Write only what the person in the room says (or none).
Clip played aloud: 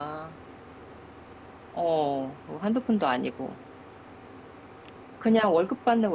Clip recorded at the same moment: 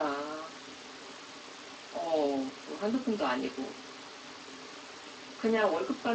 none